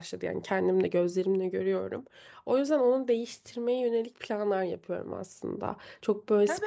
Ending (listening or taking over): taking over